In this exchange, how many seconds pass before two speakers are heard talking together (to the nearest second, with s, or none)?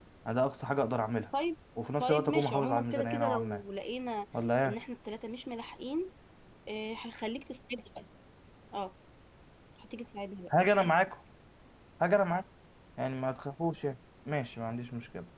2 s